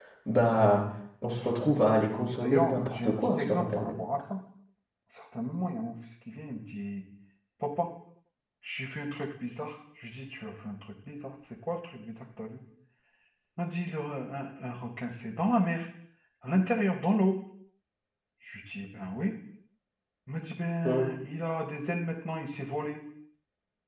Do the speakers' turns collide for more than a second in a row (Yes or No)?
Yes